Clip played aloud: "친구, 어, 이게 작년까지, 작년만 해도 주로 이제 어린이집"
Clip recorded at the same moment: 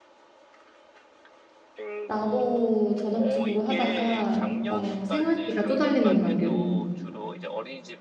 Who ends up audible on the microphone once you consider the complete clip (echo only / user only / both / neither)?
both